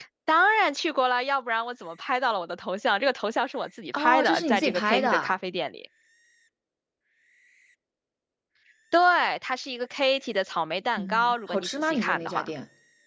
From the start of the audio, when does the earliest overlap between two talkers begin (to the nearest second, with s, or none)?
4 s